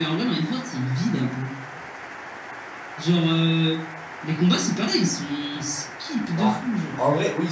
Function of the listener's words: taking over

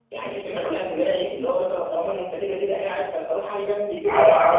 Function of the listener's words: taking over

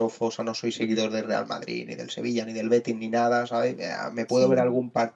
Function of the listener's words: listening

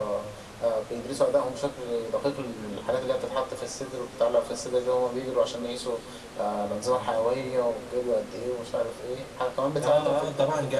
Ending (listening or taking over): taking over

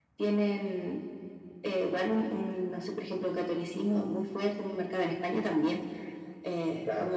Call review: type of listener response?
listening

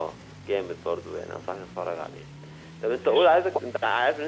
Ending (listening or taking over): listening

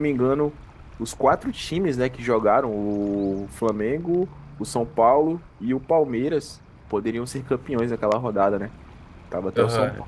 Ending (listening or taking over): taking over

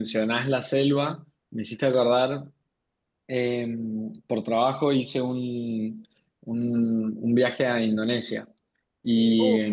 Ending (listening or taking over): listening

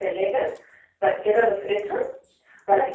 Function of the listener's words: taking over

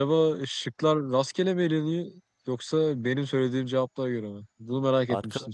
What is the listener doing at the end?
taking over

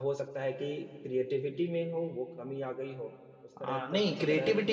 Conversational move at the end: taking over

